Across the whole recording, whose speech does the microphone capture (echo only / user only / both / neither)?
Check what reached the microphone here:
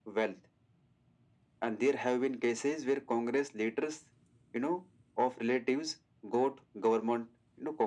echo only